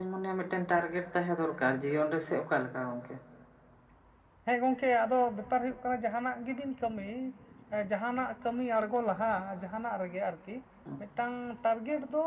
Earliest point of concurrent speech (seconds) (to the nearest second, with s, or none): none